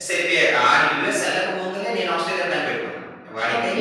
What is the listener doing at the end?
taking over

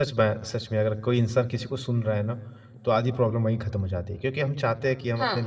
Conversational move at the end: listening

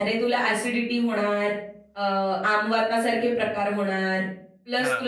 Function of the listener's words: listening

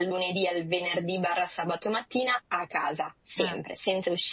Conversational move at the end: listening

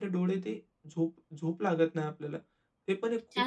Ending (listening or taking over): taking over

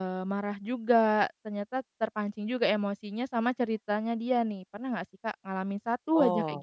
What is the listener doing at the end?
taking over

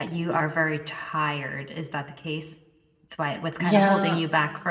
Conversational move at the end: listening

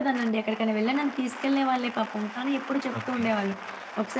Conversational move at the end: listening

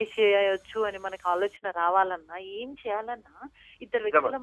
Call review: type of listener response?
listening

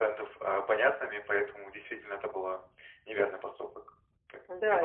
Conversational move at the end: taking over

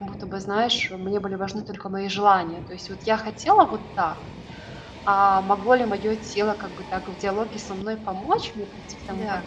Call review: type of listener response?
listening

